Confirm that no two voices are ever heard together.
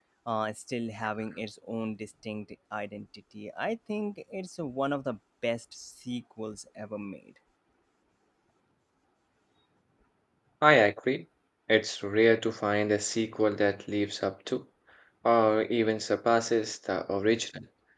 Yes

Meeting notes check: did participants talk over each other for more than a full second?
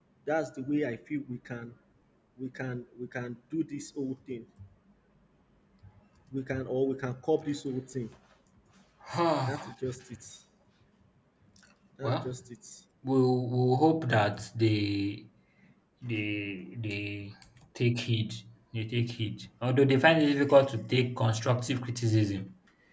No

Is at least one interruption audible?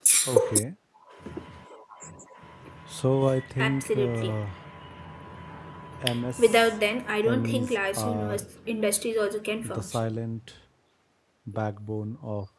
Yes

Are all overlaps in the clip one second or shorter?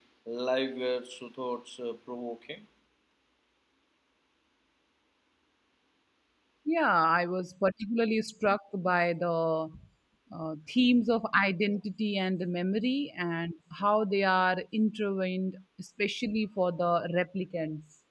Yes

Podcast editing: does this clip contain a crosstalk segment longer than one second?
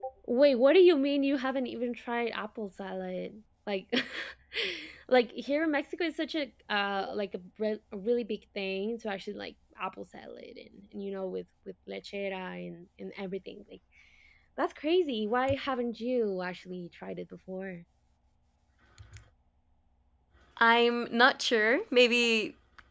No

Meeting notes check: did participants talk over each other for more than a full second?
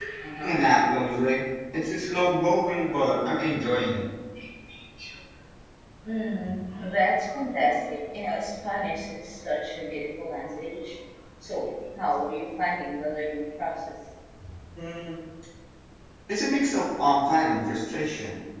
No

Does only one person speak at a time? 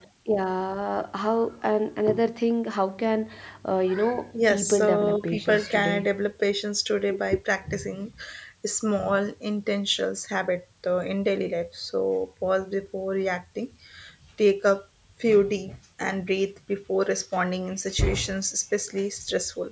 No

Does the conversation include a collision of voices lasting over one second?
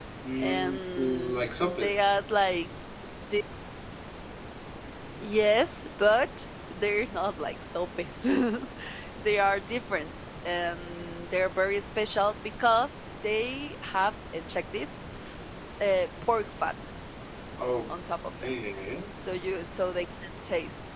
Yes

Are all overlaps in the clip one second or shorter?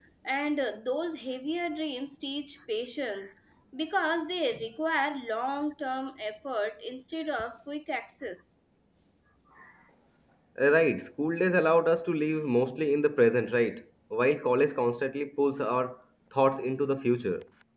Yes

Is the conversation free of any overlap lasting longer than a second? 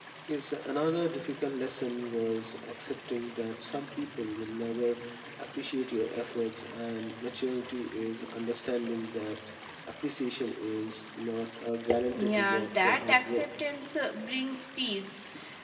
No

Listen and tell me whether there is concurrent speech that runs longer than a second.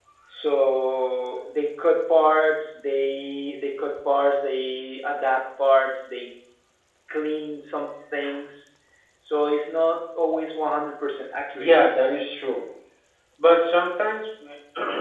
No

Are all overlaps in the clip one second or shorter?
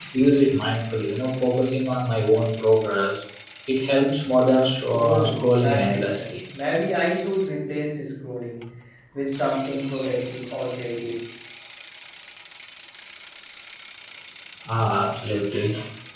No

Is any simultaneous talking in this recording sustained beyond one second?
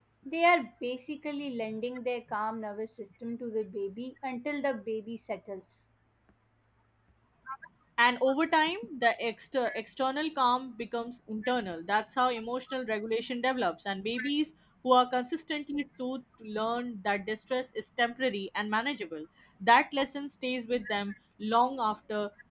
No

